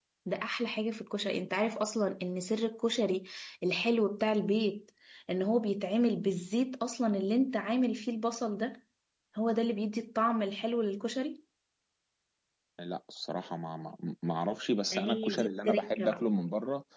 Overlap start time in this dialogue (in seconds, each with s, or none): 14.9 s